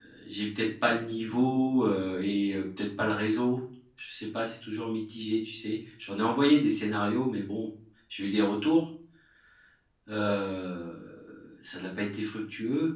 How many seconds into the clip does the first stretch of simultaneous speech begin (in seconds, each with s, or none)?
none